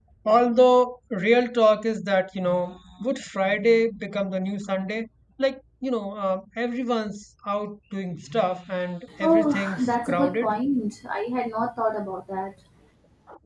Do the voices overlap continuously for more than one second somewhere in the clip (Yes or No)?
Yes